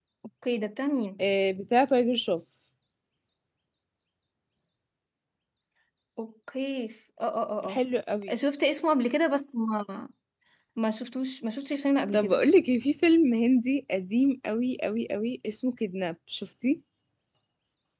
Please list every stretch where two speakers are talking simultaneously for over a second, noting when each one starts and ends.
none

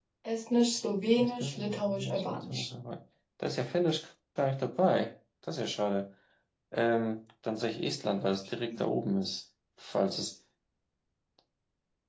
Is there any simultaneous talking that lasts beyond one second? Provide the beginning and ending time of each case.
1.2-2.7

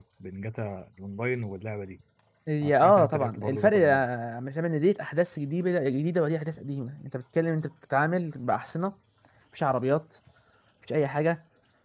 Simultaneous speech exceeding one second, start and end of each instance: 2.6-4.1

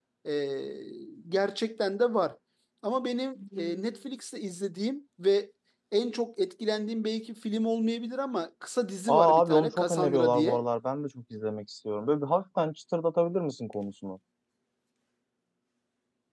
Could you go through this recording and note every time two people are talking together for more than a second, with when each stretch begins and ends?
9.1-10.6

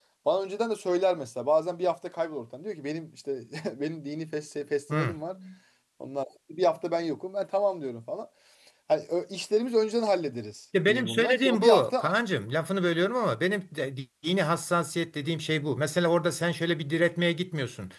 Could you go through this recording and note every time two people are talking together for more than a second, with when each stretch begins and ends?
10.9-12.2

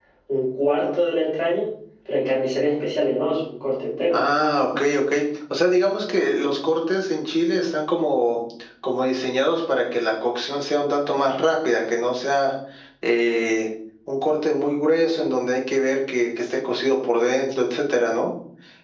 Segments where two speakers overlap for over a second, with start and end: none

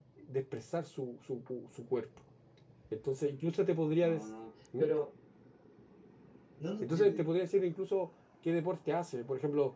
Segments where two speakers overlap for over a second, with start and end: none

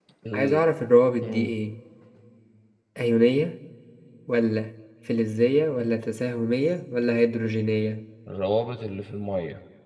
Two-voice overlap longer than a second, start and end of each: none

